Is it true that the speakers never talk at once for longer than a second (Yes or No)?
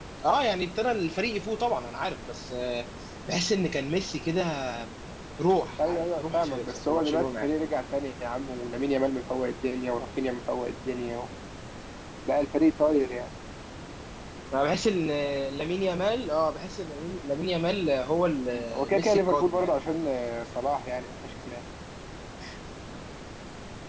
No